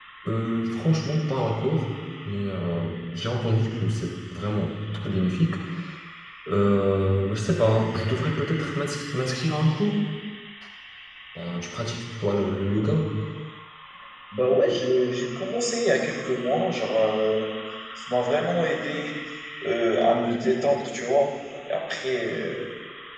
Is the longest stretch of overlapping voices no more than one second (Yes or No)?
Yes